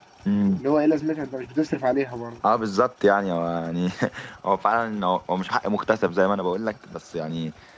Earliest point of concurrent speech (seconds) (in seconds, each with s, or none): none